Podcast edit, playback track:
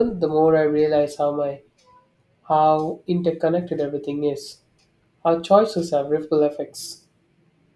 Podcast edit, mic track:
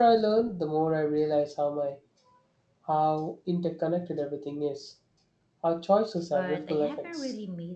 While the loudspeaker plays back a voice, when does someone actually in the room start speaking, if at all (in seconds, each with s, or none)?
6.3 s